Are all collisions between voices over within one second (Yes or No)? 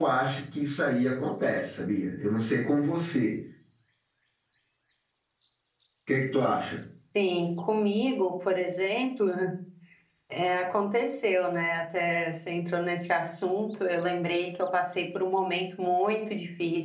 Yes